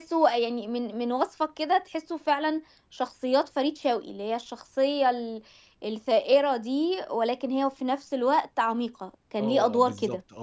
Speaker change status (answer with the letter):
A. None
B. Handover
B